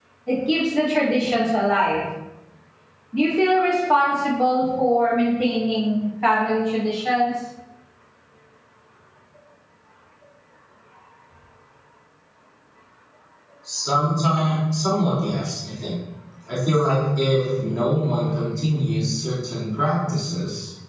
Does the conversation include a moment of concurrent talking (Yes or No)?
No